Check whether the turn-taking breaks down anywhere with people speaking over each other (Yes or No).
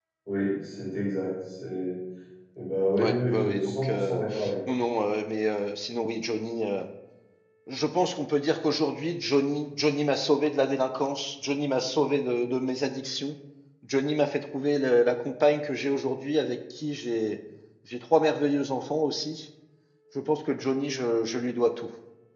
Yes